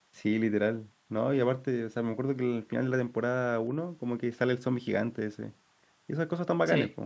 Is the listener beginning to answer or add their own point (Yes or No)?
No